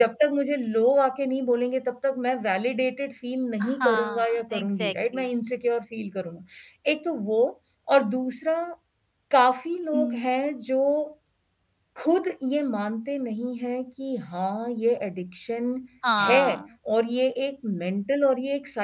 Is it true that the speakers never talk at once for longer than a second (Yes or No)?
No